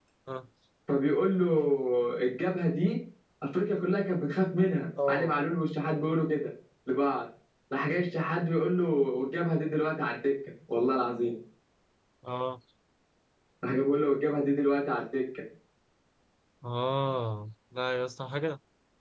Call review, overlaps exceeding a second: none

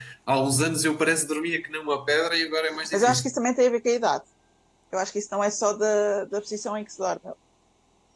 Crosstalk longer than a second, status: none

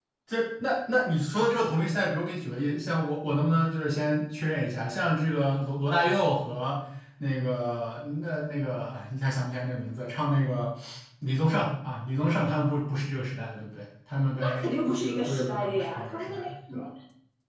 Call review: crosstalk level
present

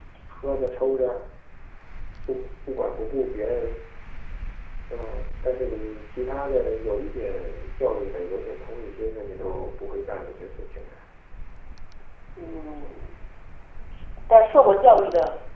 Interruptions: none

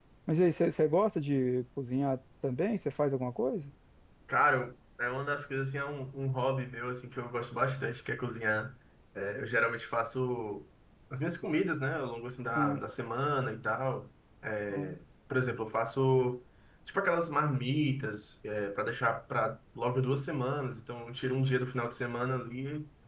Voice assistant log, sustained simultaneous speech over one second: none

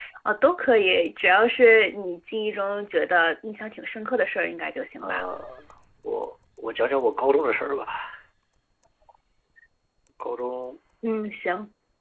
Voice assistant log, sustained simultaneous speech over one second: none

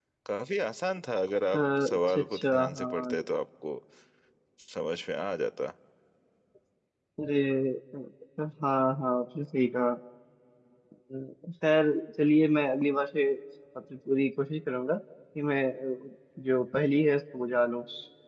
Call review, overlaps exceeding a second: present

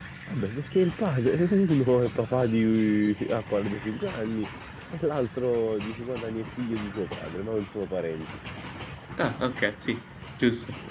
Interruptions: none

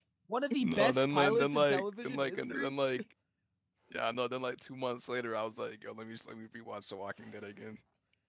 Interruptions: present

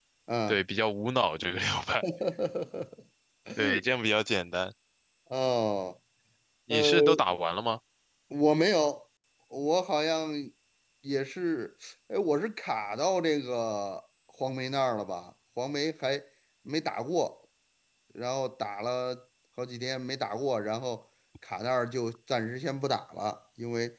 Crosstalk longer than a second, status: none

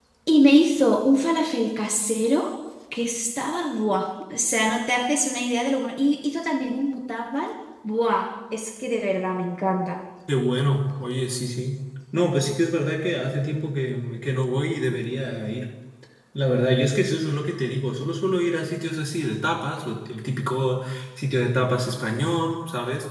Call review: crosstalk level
none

